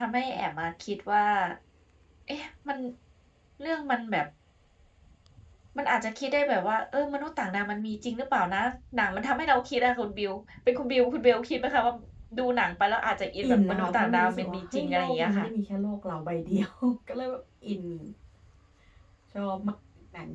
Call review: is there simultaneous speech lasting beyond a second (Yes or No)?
Yes